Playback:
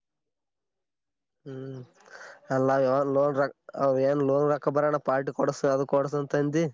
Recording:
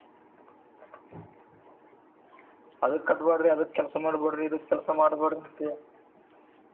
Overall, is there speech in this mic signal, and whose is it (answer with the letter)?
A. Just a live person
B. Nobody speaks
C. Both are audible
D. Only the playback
A